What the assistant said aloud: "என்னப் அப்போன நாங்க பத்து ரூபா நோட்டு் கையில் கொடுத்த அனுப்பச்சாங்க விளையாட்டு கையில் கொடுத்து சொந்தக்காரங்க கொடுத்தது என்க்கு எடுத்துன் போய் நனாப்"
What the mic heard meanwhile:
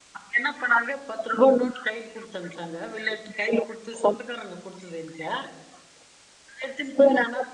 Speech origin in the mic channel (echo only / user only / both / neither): echo only